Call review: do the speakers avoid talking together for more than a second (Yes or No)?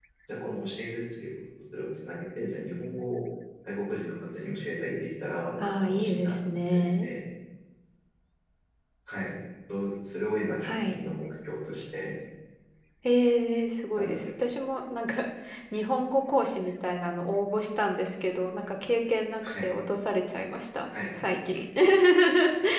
No